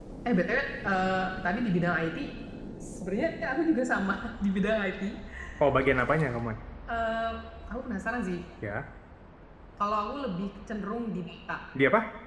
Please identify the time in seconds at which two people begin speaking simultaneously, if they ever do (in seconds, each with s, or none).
none